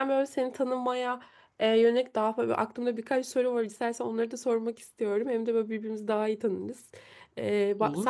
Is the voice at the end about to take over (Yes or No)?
No